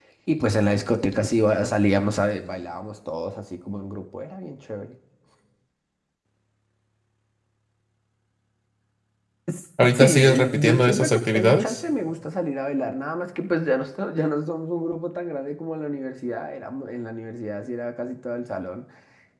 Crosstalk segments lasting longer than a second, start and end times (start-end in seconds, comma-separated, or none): 9.9-11.8